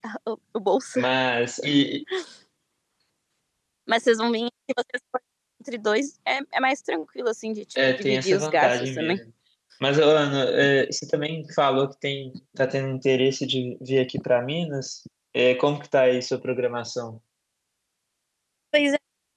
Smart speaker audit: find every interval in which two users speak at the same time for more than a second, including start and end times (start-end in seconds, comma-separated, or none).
8.0-9.2